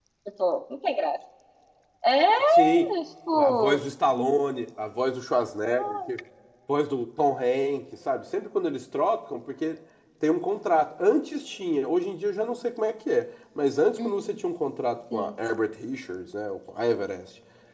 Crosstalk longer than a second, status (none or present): none